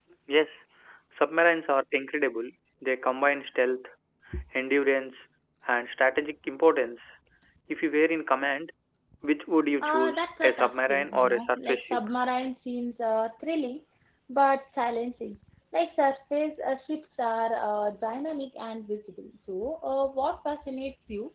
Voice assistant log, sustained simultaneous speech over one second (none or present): present